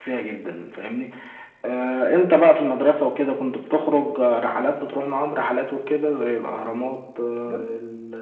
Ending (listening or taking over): listening